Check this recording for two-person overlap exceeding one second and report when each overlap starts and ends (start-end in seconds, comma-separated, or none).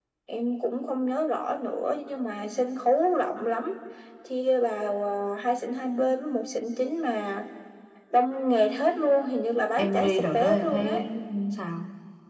9.8-11.0